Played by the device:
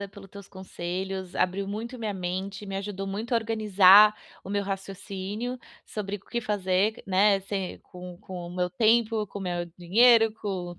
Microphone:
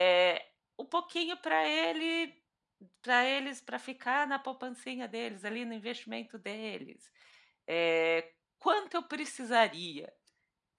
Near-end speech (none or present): present